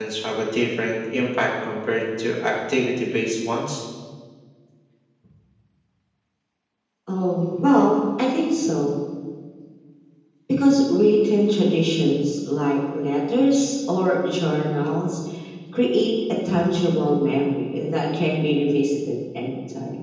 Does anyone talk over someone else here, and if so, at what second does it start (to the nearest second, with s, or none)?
none